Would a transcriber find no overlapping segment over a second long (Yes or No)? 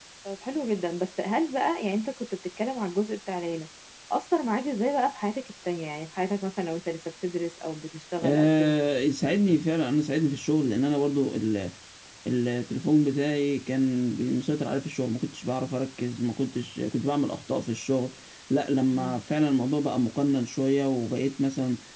Yes